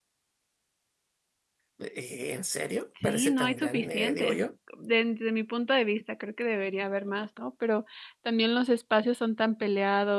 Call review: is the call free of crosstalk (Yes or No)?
No